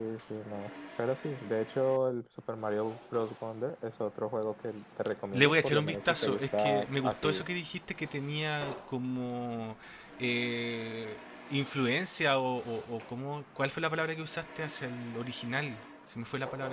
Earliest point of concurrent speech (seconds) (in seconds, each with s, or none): 5.3 s